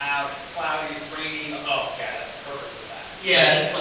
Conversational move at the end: taking over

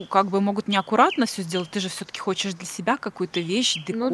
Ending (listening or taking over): listening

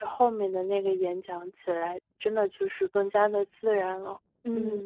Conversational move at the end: taking over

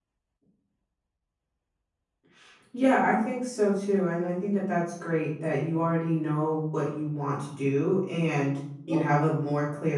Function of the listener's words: listening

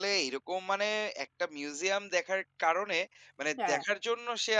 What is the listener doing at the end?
listening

